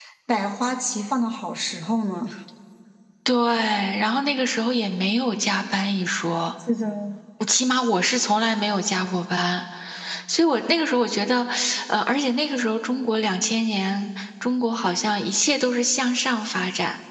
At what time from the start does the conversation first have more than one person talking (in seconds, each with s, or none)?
none